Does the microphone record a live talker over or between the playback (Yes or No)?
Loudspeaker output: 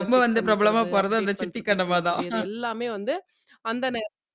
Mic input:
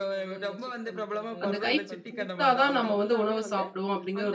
Yes